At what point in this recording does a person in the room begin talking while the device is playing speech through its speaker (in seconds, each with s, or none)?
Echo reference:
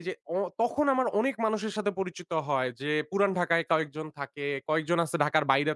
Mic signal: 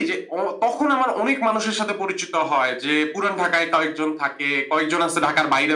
none